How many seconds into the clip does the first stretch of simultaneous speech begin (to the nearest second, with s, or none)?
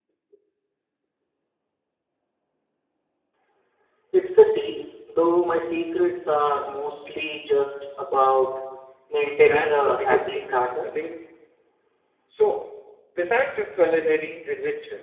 9 s